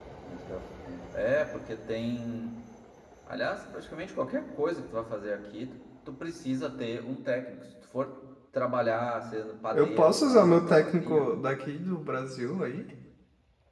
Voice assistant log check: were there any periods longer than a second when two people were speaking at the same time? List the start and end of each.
9.7-11.2

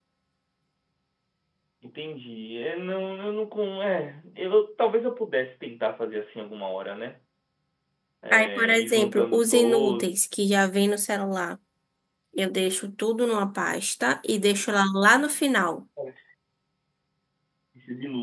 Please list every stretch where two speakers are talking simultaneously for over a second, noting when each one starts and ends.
8.3-10.1

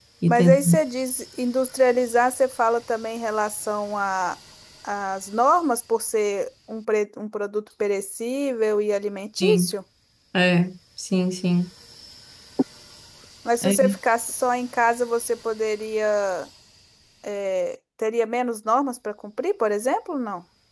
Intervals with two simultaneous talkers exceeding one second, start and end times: none

